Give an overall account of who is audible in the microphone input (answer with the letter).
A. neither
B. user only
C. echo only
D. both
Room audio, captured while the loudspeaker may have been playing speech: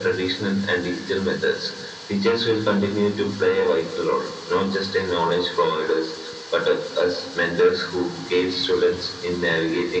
D